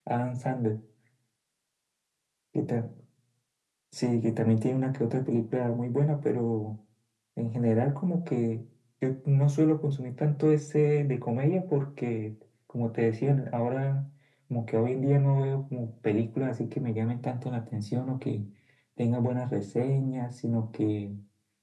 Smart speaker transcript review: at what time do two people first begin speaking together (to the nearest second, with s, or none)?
none